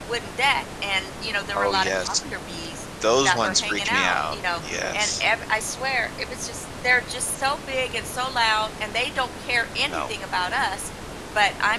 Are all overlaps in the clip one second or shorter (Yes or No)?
No